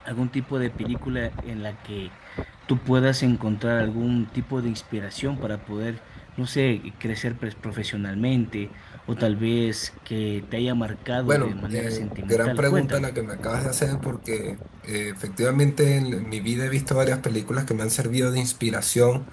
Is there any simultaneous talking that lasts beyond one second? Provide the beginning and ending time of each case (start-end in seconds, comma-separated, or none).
11.2-13.1